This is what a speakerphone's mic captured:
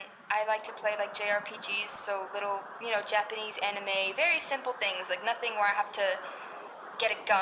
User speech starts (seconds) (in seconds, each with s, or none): none